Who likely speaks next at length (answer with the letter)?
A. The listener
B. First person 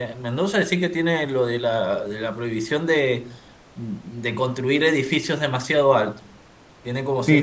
A